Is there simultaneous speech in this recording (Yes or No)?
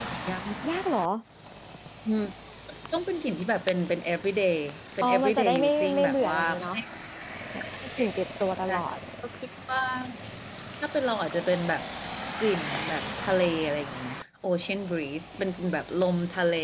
Yes